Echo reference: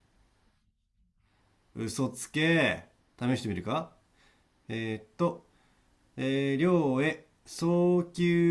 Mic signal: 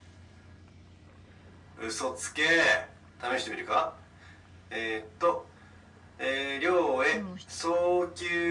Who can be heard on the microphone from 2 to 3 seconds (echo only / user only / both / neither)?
echo only